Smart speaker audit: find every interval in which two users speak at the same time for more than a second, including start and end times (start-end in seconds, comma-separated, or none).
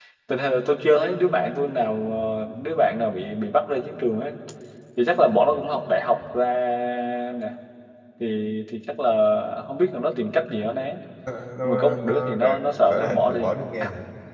11.6-13.5